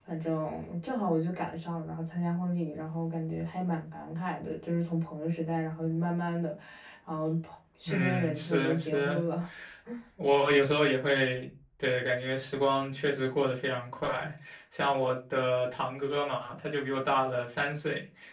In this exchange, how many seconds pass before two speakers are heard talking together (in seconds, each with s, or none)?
7.9 s